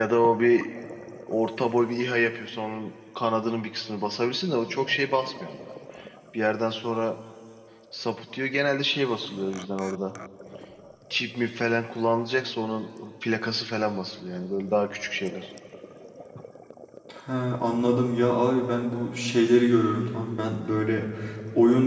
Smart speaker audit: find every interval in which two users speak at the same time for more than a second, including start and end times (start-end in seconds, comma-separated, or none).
none